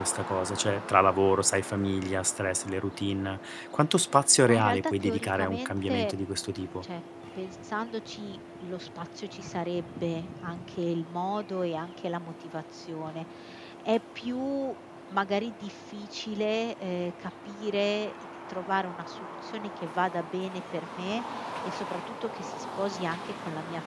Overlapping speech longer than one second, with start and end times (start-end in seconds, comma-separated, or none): 4.5-6.1